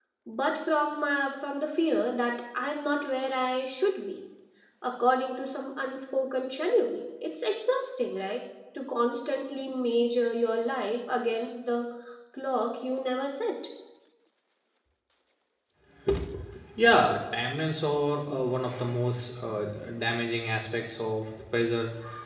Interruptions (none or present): none